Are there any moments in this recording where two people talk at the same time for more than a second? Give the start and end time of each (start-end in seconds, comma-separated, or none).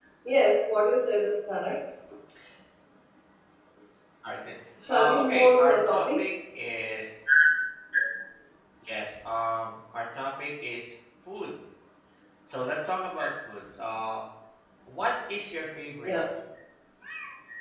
4.9-6.2